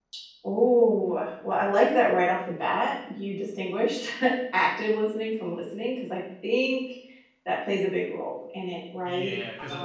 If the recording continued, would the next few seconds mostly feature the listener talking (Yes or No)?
Yes